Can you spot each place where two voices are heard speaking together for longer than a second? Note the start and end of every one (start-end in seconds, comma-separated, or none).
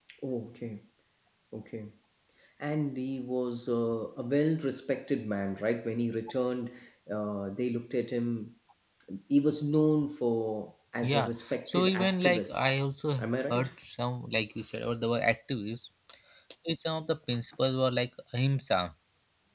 11.0-12.7